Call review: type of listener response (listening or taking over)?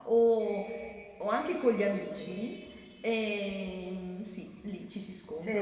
taking over